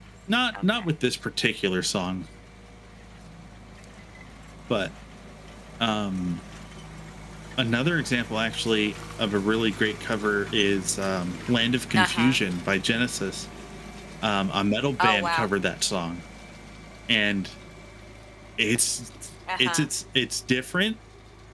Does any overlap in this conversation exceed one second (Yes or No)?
No